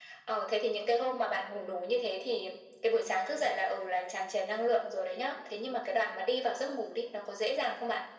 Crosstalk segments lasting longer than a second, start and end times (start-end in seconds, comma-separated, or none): none